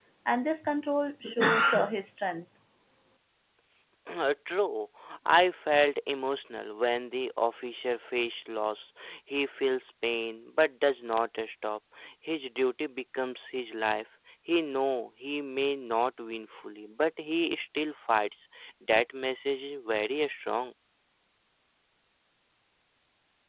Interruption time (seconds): none

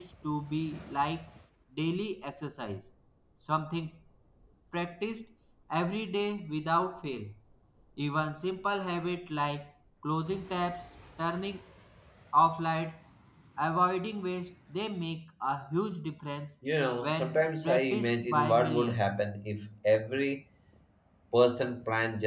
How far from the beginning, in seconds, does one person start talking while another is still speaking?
17.0 s

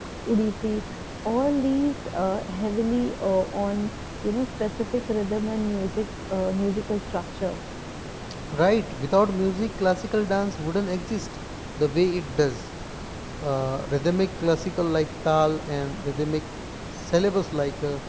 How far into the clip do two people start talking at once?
none

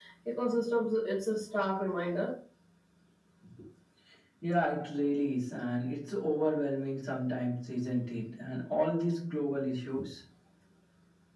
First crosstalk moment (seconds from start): none

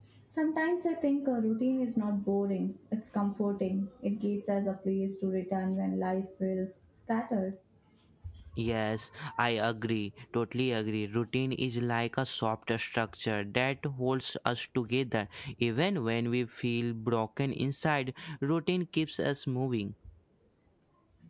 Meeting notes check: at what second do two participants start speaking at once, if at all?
none

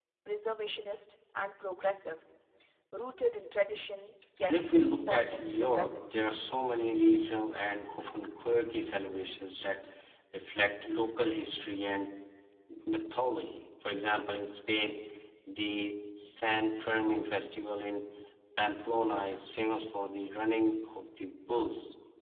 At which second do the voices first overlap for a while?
4.4 s

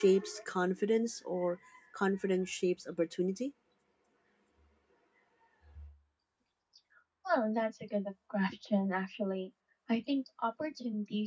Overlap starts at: none

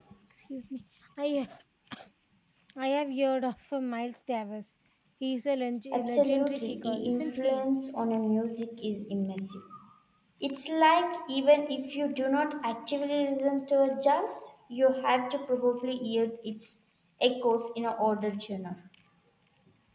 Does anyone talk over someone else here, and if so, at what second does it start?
5.9 s

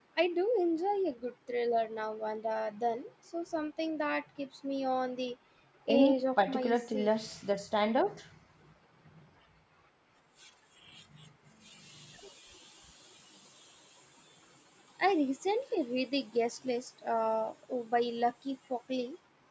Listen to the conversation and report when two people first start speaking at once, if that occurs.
5.9 s

